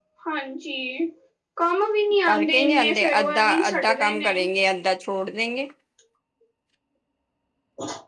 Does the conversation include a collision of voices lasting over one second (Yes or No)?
Yes